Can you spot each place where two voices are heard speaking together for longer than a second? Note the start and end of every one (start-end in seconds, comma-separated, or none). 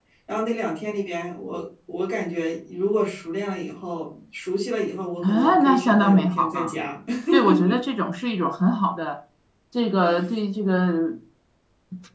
5.2-6.8